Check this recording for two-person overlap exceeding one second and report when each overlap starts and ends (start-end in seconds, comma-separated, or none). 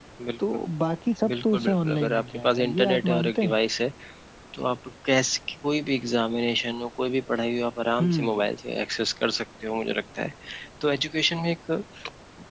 1.3-3.6